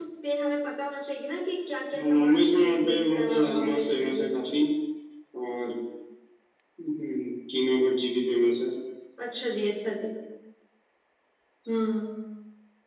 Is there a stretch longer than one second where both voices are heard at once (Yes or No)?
Yes